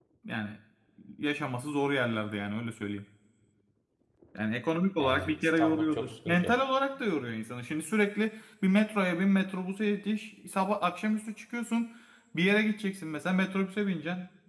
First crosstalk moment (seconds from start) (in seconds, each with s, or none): 5.0 s